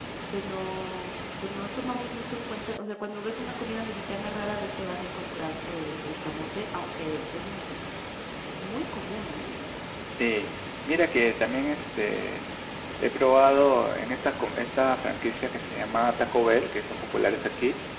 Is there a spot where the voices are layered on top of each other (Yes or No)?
No